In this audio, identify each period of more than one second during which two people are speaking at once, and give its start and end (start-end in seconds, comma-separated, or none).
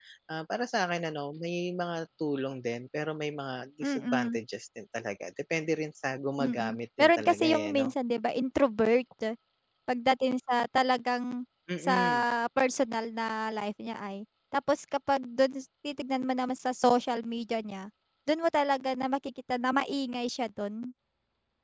6.4-7.9